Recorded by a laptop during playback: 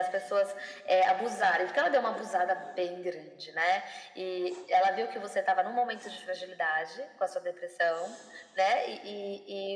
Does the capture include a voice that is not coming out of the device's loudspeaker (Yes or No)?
No